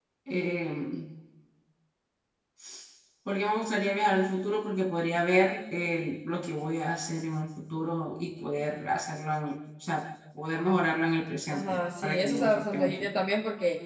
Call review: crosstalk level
present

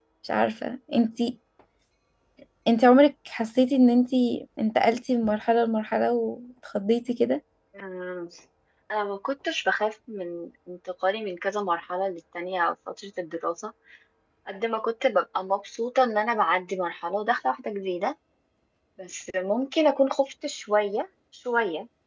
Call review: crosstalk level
none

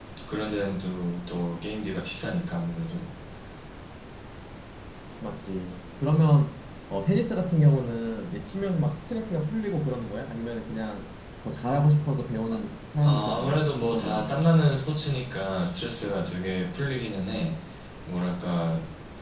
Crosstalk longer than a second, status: present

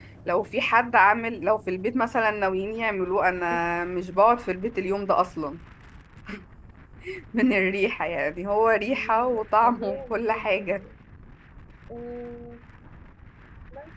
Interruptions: present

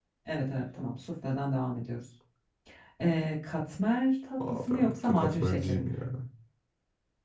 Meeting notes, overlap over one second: present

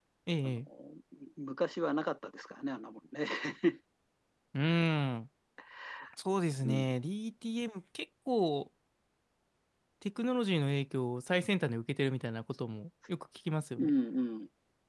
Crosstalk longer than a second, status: none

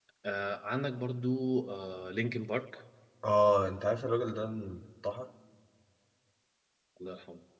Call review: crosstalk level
none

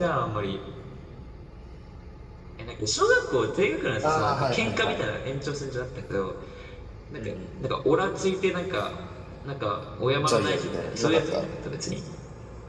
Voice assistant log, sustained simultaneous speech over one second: present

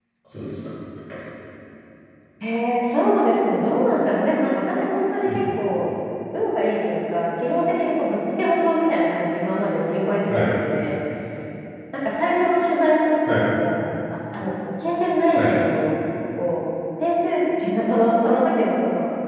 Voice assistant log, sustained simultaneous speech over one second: none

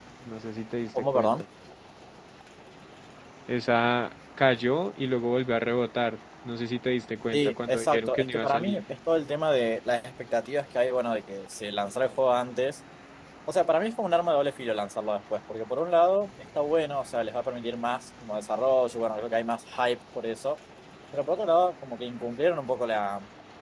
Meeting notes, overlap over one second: present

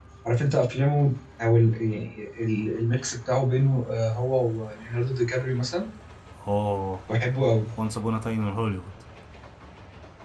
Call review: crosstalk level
none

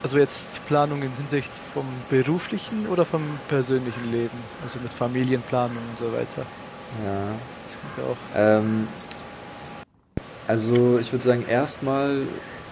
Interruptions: none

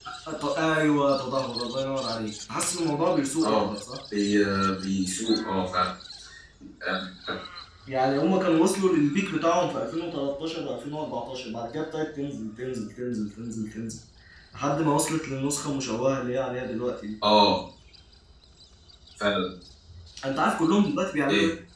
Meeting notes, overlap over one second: none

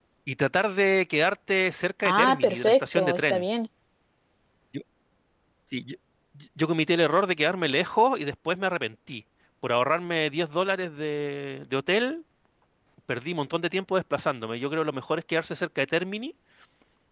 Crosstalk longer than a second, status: present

